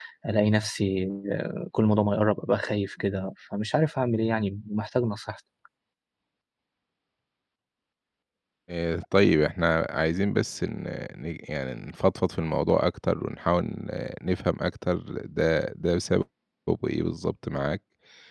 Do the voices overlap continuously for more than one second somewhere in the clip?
No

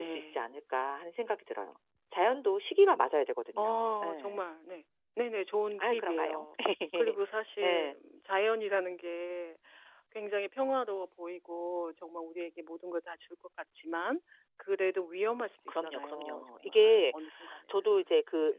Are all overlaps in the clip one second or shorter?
No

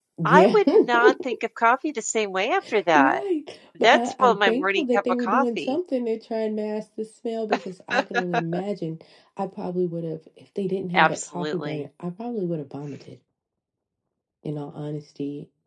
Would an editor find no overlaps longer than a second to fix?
No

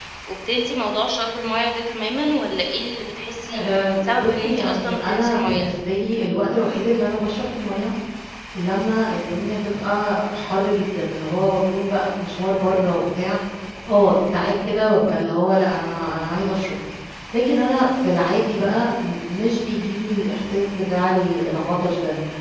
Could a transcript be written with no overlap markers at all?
No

